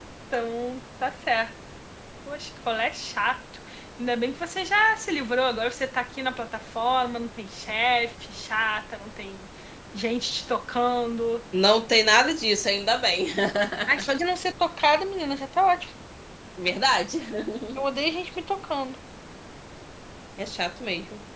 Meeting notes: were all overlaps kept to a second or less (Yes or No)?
Yes